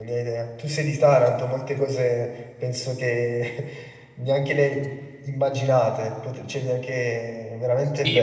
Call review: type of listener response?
taking over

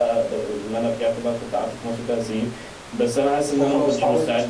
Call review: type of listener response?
listening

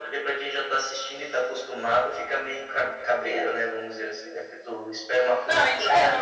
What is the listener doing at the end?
taking over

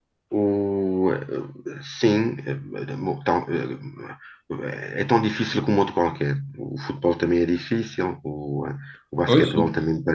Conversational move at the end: listening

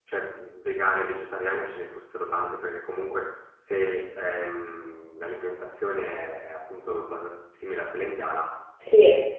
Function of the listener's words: taking over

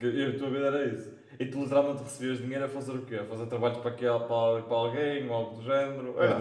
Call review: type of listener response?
listening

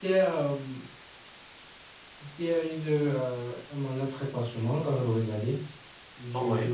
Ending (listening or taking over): listening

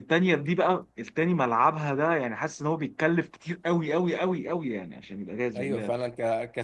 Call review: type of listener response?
taking over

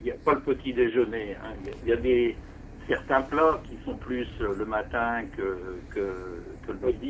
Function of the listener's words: taking over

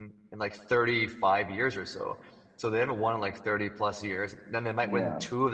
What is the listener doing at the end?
listening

